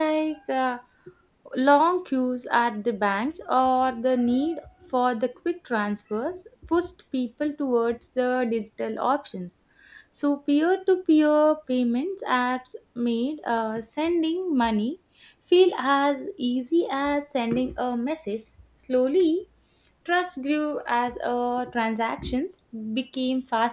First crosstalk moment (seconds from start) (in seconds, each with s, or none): none